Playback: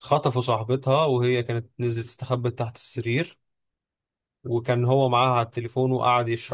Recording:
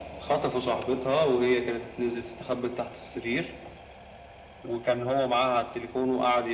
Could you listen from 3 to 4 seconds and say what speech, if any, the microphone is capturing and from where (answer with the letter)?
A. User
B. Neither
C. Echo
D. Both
C